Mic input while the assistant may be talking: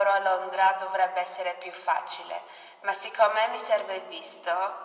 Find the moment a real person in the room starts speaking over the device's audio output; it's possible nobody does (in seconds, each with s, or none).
none